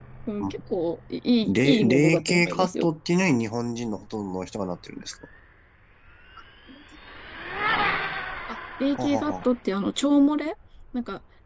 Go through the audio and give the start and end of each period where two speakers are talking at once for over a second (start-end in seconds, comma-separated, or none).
1.5-2.9